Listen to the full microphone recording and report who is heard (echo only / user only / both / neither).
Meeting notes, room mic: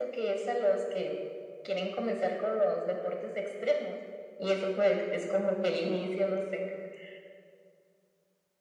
echo only